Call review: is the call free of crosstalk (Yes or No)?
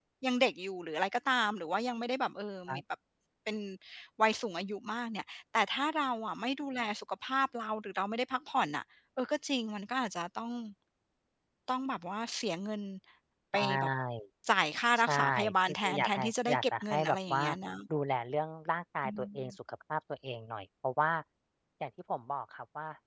No